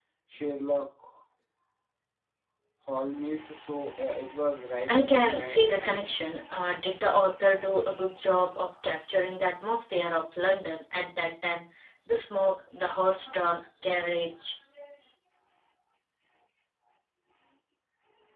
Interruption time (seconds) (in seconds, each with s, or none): 4.9 s